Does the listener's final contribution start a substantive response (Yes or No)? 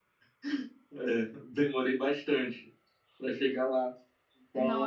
Yes